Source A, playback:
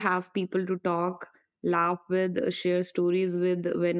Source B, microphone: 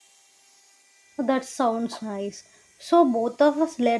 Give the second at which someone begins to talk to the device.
1.2 s

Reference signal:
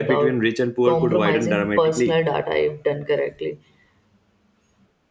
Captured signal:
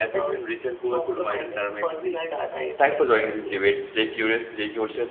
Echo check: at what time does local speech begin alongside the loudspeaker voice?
2.8 s

